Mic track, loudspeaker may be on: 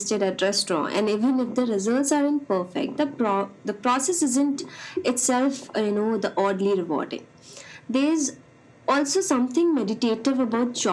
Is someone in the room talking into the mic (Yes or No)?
No